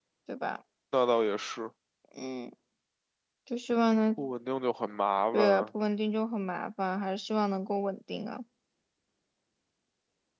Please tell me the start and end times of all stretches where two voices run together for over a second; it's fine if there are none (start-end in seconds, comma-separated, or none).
none